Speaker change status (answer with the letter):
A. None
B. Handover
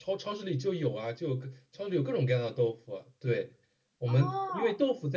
A